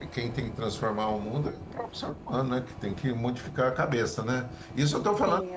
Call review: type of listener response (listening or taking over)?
listening